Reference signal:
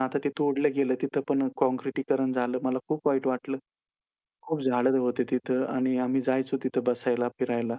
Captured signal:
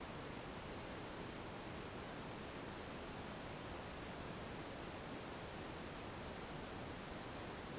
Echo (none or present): none